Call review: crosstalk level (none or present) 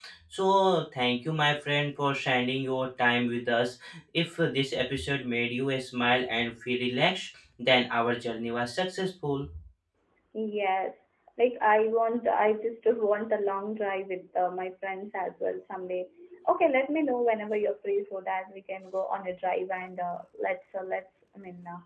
none